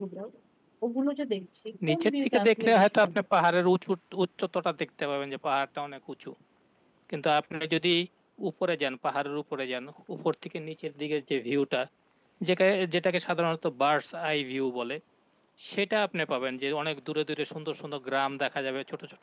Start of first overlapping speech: 2 s

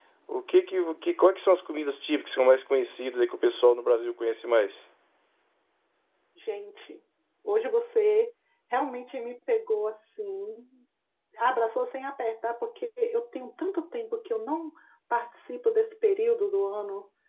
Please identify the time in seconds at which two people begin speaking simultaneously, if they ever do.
none

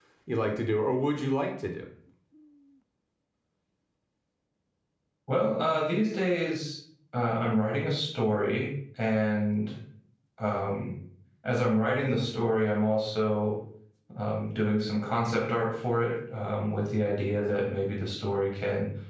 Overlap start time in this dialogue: none

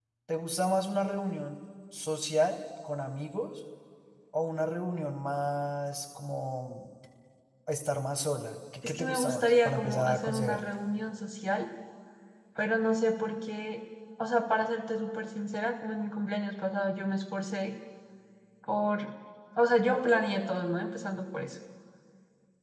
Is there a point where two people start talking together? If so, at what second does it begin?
9 s

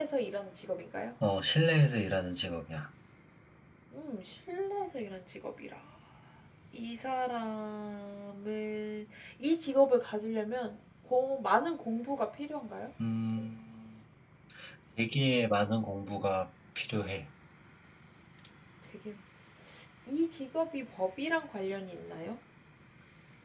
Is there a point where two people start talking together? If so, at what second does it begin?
none

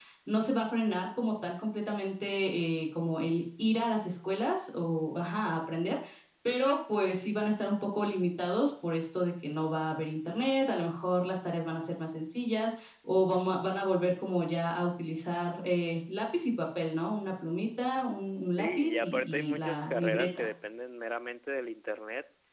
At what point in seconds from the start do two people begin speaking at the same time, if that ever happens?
19 s

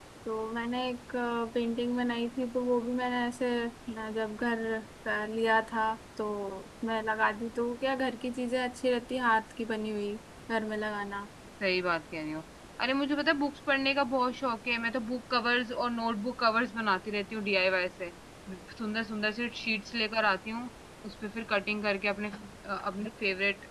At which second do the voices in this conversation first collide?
none

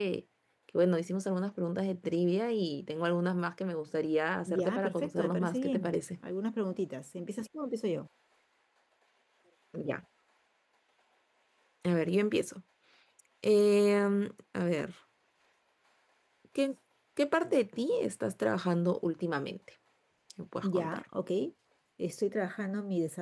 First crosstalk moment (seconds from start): 4 s

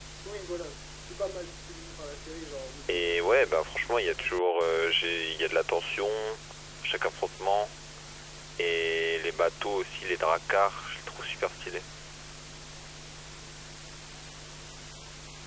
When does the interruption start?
3 s

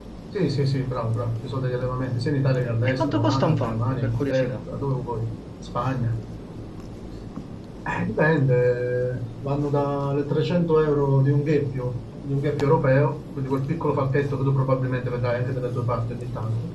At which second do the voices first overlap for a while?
3 s

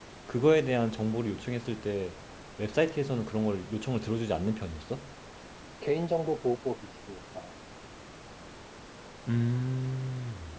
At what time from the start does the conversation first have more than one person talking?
none

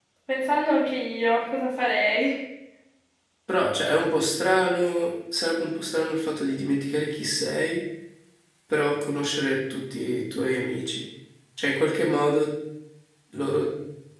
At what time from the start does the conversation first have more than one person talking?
none

